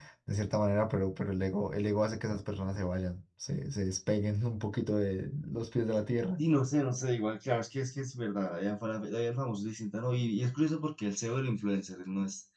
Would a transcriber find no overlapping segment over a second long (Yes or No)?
Yes